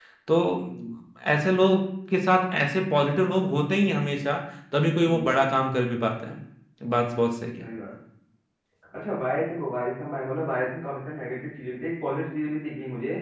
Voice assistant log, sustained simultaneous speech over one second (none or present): none